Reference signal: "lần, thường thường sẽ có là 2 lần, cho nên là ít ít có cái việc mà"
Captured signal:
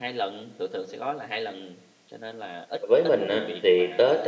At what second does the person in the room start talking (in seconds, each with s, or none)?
2.8 s